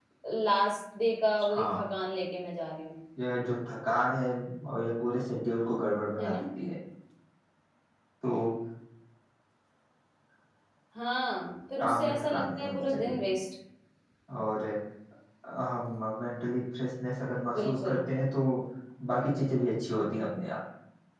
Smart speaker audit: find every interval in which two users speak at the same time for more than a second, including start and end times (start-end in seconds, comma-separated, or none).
11.8-13.2